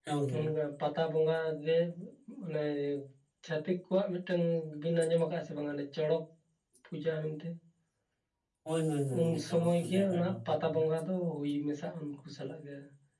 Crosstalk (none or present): present